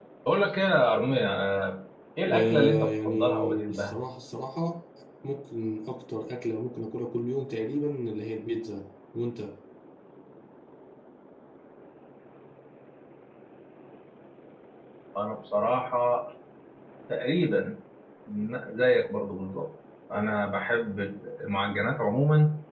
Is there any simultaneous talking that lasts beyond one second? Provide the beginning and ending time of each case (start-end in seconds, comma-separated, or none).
2.3-4.0